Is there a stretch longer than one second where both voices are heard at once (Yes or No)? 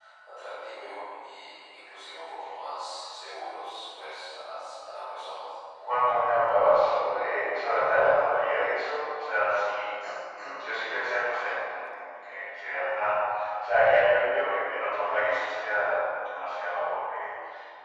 No